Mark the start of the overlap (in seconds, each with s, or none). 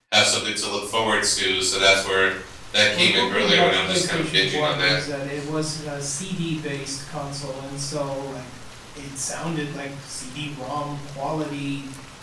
2.9 s